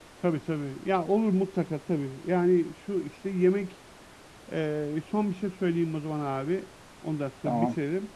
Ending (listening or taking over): listening